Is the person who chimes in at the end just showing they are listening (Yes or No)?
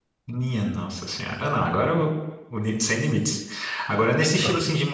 Yes